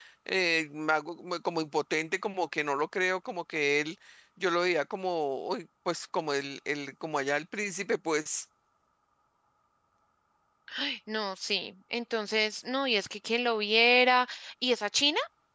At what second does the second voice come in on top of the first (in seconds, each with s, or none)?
none